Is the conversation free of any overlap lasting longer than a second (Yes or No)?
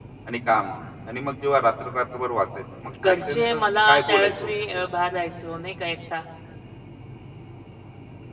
No